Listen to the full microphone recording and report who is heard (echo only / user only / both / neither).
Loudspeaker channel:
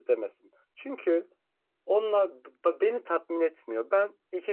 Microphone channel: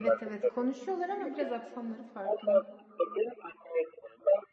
both